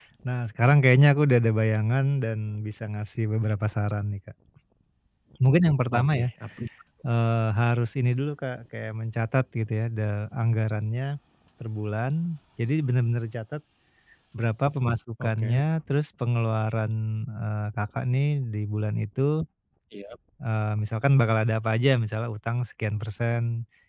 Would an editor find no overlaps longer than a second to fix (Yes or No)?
Yes